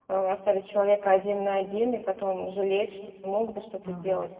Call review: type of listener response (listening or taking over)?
listening